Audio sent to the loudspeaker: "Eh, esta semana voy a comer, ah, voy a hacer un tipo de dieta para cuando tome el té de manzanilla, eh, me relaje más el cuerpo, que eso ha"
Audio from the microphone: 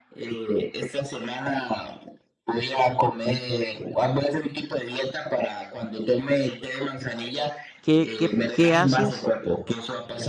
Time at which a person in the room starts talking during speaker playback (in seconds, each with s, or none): 7.8 s